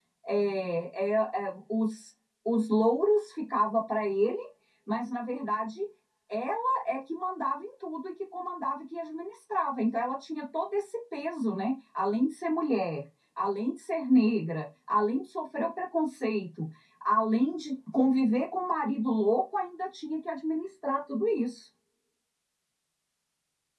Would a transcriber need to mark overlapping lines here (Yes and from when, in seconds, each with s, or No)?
No